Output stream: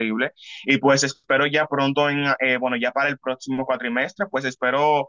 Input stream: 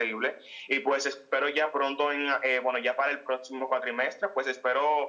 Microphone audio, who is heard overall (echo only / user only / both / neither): echo only